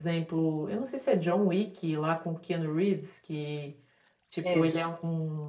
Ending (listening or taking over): listening